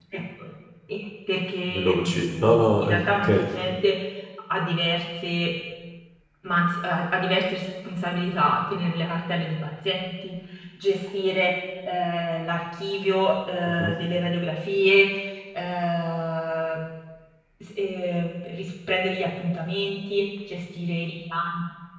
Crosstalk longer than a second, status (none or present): present